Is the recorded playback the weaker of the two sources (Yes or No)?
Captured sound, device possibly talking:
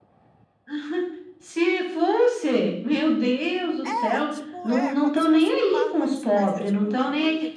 No